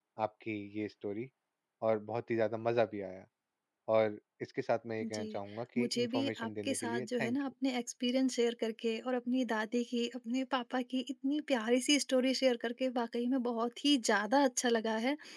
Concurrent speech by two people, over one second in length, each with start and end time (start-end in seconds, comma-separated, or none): 5.8-7.4